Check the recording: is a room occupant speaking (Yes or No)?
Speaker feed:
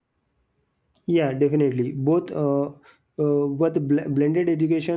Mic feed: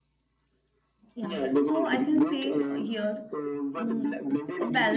Yes